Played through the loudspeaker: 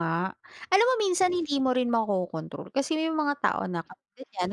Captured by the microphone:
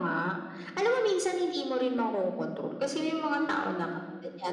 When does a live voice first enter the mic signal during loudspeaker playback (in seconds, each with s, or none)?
none